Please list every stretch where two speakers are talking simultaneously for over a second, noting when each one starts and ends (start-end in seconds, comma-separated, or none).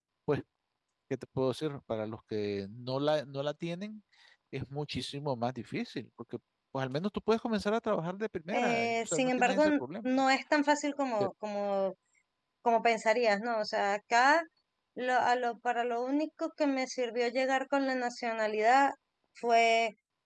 8.5-10.1